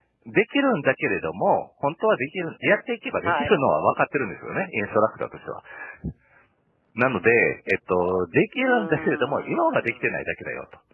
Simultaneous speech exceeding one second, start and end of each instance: 8.6-10.2

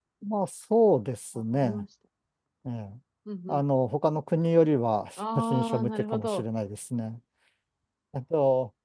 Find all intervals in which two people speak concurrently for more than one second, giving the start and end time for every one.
5.2-6.4

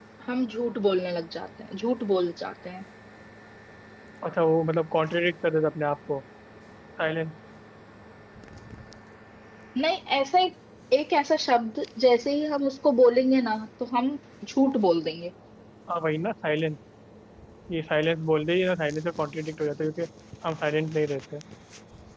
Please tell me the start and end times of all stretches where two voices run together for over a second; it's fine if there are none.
none

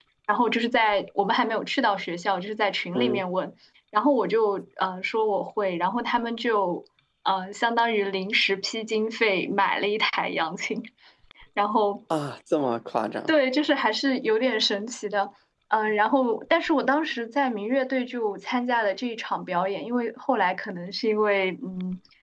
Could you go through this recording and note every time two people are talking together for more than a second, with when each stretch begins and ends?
none

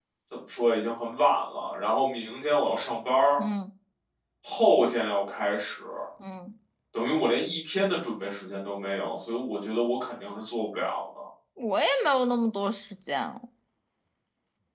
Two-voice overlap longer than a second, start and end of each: none

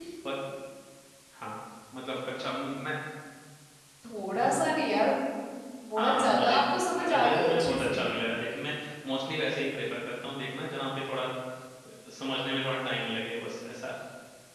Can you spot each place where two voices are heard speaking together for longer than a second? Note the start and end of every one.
6.0-8.0

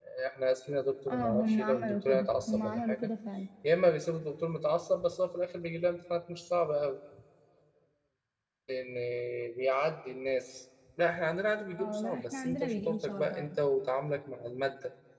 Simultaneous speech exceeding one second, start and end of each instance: 1.1-3.0, 11.8-13.5

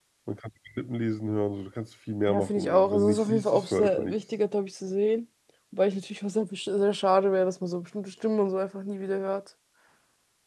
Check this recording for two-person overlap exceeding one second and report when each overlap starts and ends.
2.3-4.2

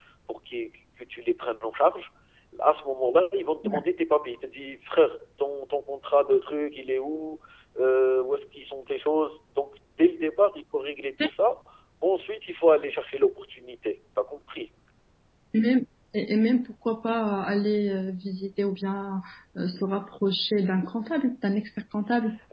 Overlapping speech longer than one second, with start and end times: none

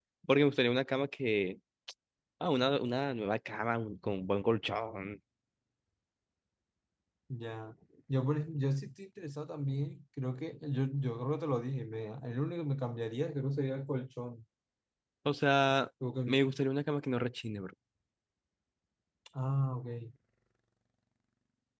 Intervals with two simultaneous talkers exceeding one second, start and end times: none

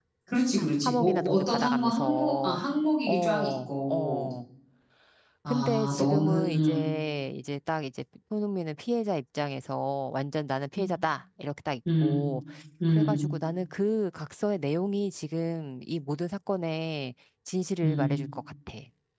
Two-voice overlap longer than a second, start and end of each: 0.8-2.6, 3.1-4.3, 5.5-6.8

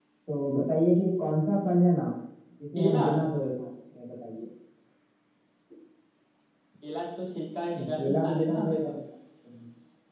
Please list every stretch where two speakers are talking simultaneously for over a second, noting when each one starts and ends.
7.8-9.0

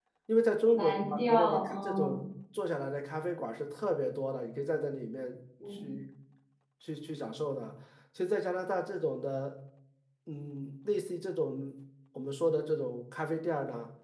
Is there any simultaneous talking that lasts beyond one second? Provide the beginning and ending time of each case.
0.7-2.2

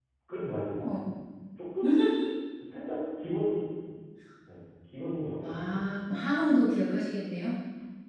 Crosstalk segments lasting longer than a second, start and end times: none

